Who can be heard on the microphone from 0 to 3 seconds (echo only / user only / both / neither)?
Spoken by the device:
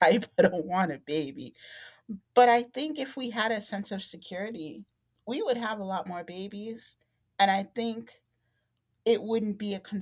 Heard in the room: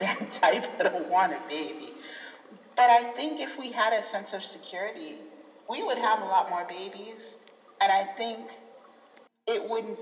echo only